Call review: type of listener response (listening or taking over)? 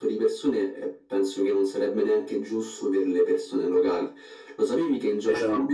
listening